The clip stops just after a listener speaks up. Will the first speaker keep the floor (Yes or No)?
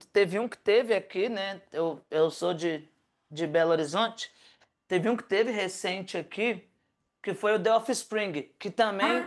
Yes